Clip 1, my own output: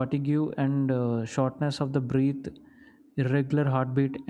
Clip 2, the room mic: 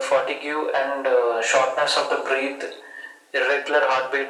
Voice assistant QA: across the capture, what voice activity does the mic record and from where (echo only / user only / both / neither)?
echo only